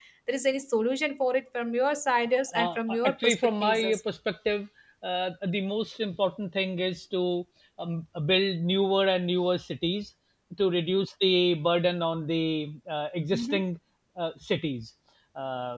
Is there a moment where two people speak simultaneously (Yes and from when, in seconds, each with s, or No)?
Yes, from 2.5 s